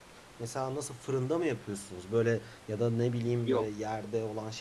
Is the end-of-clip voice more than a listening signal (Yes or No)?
No